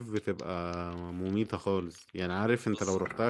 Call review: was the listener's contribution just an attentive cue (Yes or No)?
Yes